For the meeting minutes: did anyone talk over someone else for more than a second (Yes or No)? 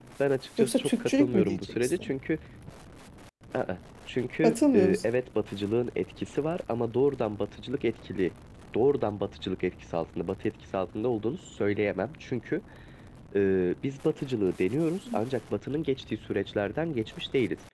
Yes